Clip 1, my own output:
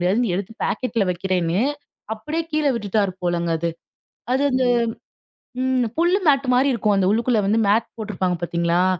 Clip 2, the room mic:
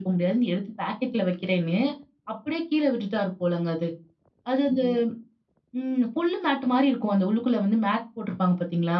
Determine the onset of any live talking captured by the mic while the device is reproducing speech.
none

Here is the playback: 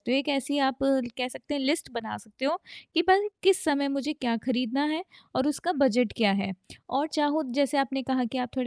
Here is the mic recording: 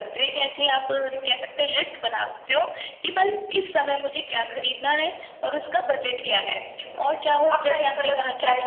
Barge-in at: 7.5 s

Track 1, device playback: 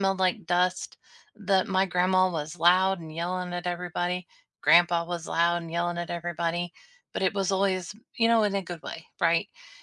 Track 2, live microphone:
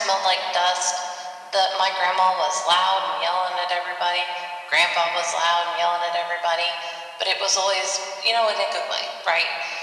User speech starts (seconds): none

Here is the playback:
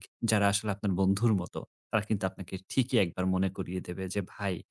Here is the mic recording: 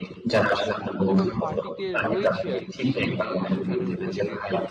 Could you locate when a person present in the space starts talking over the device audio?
1.1 s

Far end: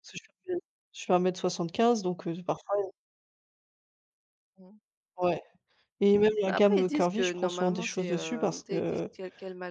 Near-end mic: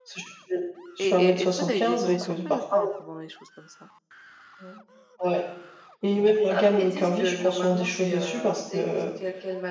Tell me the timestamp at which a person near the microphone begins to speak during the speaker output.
1.0 s

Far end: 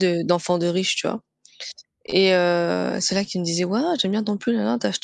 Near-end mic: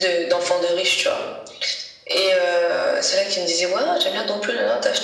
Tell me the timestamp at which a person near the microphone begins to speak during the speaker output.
none

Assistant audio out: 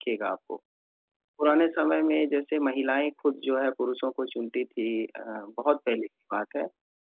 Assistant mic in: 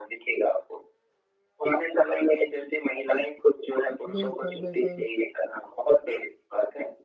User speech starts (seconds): 4.1 s

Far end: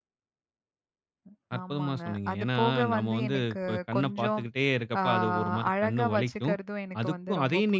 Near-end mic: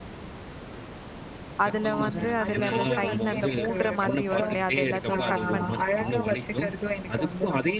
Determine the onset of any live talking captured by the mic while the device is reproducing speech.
1.6 s

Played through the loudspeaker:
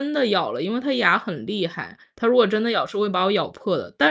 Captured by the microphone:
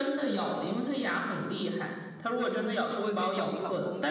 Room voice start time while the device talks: 2.8 s

